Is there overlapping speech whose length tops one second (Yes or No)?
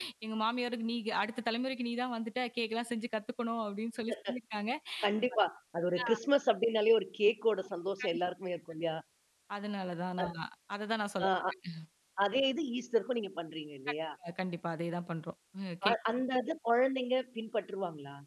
No